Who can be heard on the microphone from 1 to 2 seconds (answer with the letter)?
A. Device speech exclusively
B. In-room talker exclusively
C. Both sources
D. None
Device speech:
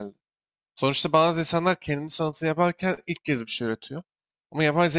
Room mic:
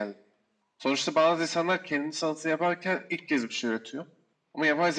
A